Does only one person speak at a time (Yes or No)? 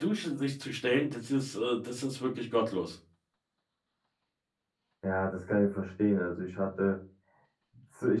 Yes